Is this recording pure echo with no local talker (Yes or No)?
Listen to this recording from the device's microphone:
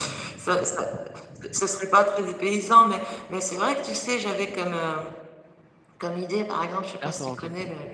No